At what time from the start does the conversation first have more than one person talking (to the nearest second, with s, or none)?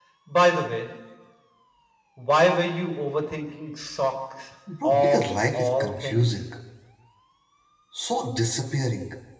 5 s